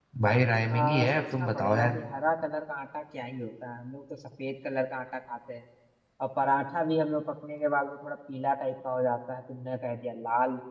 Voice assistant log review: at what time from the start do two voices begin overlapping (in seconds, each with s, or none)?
0.7 s